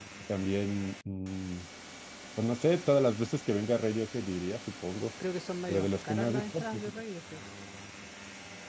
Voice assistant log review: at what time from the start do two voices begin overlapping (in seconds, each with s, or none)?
5.7 s